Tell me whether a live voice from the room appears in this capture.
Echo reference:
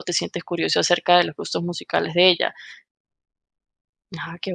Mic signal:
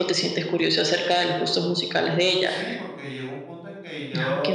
Yes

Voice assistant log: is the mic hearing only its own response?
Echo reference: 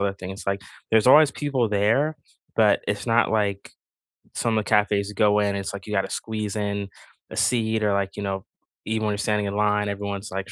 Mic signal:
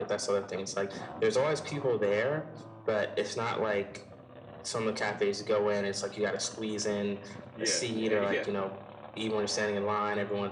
No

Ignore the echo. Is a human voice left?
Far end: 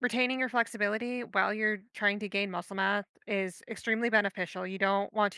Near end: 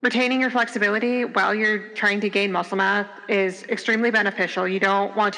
No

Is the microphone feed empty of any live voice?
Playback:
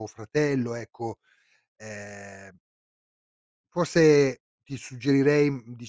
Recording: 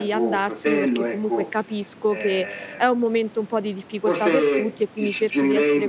No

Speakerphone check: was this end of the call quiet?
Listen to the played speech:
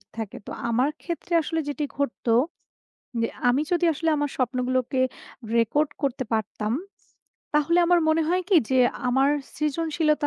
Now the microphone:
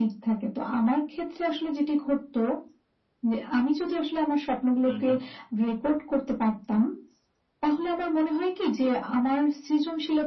No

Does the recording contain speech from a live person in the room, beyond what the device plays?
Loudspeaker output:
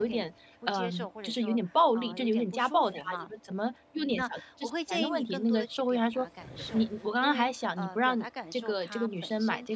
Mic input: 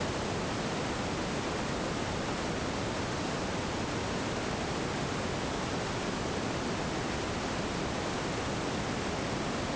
No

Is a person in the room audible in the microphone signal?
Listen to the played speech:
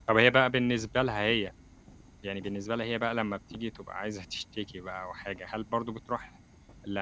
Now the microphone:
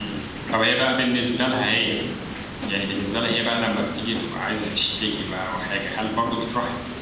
No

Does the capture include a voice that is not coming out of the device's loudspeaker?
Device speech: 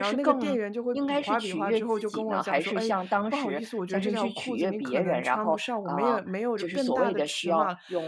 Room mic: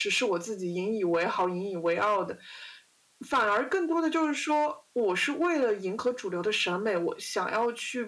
Yes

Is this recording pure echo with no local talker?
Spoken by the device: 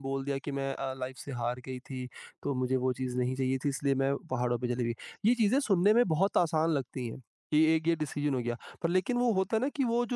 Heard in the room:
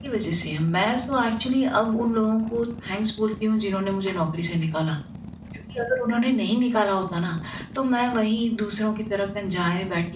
No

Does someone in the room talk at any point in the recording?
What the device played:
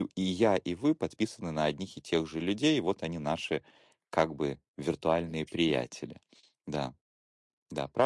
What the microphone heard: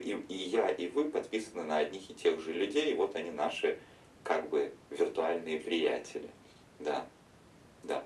No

